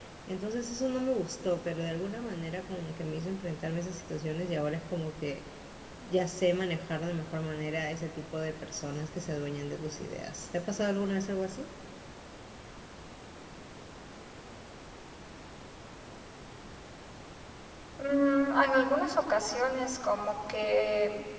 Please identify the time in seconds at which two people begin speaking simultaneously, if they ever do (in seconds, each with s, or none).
none